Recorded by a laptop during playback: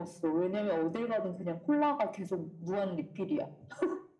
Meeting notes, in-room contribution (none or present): none